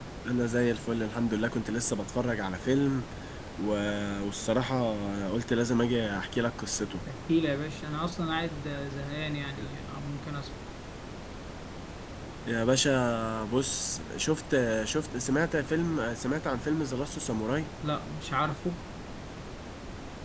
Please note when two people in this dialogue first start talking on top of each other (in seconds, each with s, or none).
none